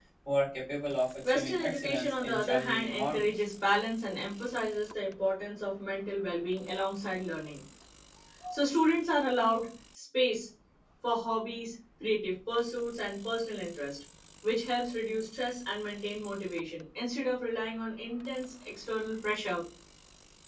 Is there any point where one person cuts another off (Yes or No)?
Yes